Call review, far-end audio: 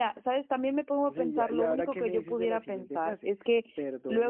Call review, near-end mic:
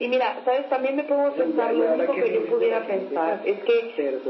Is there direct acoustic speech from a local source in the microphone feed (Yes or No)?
No